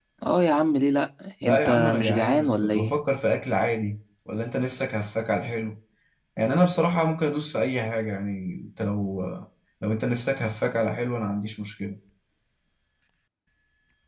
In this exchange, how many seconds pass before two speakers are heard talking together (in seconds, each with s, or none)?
1.4 s